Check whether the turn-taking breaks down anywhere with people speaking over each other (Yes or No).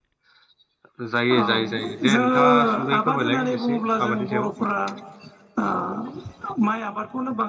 Yes